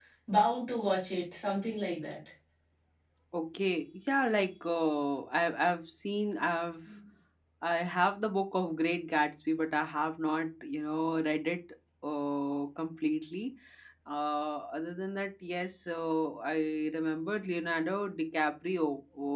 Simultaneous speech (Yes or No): No